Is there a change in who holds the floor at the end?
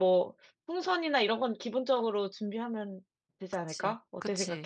Yes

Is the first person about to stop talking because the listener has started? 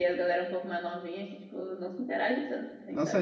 Yes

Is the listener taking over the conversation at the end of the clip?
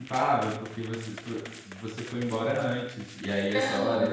No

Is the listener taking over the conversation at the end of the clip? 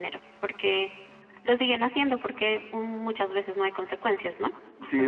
Yes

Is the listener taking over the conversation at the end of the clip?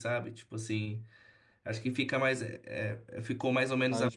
No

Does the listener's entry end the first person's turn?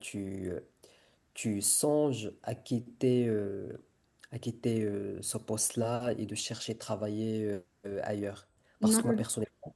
No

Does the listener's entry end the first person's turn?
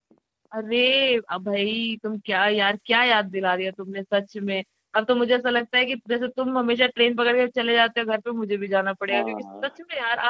No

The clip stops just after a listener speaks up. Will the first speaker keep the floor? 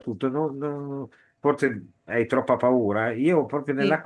Yes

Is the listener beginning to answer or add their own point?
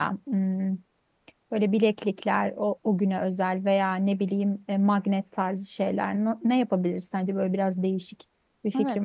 Yes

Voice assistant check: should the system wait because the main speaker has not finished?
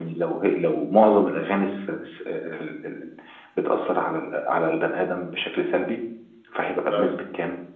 Yes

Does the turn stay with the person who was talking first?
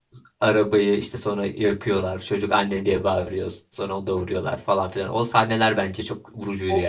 No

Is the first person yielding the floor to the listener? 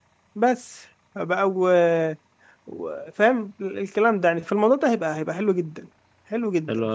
Yes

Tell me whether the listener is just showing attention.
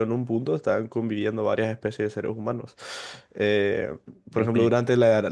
Yes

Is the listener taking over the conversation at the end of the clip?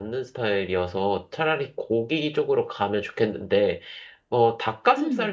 No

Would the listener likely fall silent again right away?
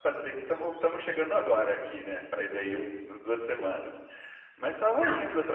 Yes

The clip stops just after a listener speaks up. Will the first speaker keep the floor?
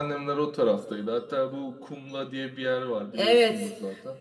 No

